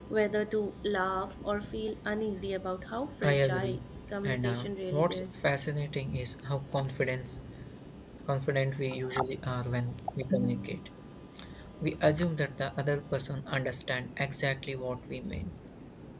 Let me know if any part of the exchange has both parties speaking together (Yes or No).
Yes